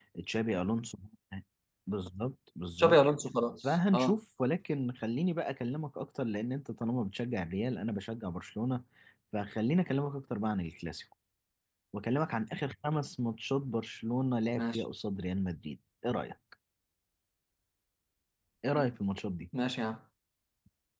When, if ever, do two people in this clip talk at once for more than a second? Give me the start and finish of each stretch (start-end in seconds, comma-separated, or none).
none